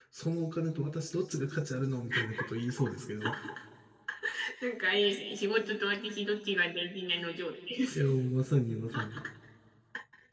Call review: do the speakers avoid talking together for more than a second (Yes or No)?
Yes